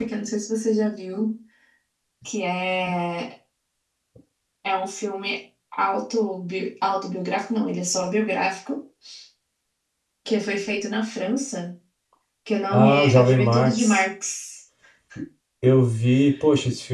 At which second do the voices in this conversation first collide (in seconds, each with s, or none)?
12.7 s